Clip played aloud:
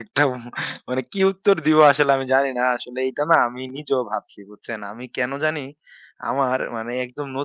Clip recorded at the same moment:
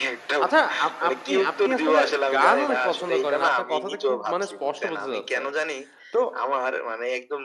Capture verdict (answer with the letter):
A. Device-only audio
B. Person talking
B